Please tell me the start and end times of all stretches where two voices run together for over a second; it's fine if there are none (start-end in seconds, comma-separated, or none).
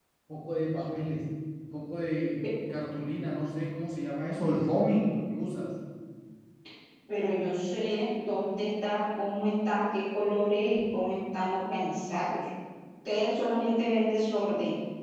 none